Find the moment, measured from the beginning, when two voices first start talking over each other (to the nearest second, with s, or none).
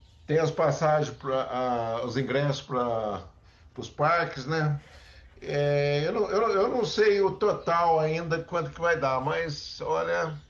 none